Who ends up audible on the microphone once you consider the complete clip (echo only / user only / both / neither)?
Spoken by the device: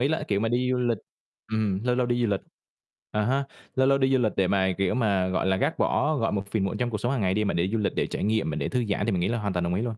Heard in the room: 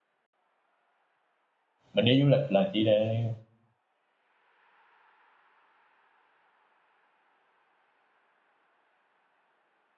user only